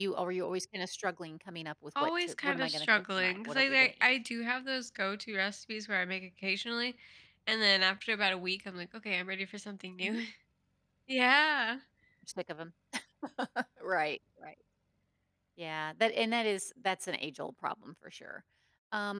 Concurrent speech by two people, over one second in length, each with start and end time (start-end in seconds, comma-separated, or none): 2.0-4.1